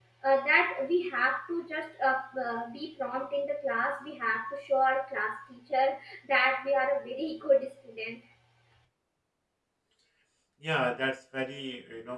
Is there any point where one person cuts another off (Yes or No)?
No